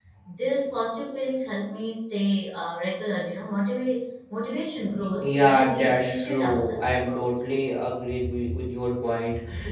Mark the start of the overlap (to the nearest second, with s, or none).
5 s